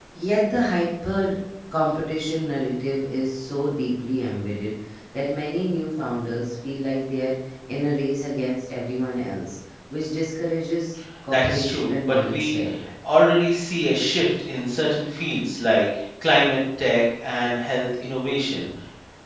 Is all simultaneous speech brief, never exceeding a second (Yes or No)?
No